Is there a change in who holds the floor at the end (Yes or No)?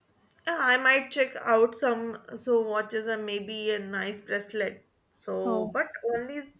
No